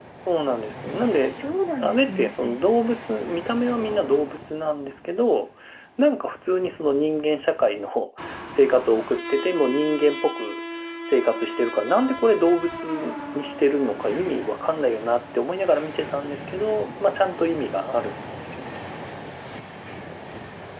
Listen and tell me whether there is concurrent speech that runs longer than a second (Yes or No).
Yes